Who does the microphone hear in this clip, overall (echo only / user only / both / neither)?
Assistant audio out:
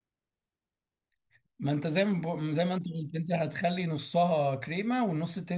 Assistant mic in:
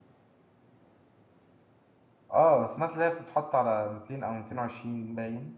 user only